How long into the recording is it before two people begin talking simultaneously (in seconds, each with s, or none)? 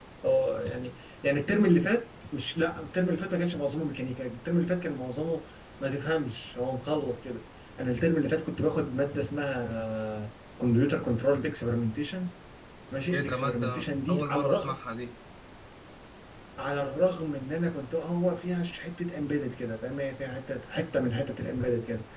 13.1 s